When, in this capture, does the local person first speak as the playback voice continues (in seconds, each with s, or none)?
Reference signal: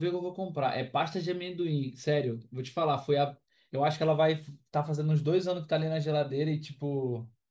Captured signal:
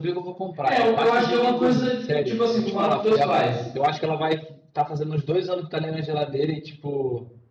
0.6 s